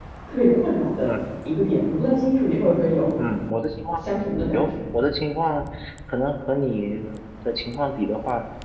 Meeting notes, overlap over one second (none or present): none